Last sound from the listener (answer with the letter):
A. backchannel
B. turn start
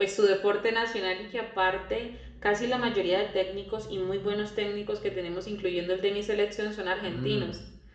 B